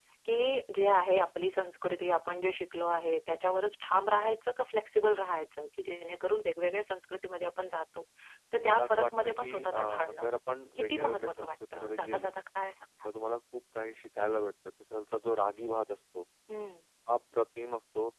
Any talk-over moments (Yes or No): Yes